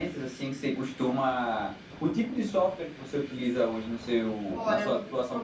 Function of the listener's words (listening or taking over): taking over